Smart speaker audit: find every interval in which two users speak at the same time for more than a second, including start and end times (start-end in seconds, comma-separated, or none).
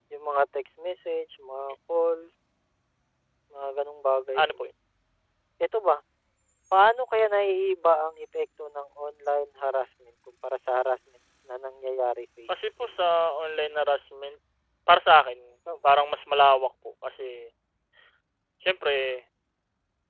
none